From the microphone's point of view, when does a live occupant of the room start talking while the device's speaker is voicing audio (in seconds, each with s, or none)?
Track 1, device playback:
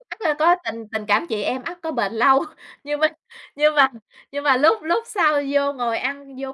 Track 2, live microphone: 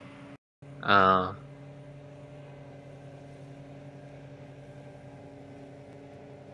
0.8 s